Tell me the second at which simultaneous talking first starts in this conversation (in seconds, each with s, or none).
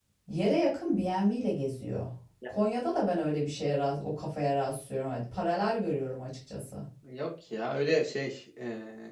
none